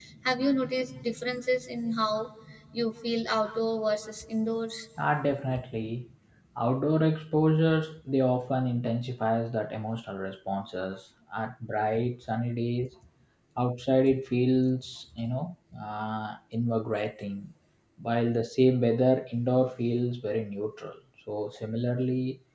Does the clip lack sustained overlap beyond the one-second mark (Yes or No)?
Yes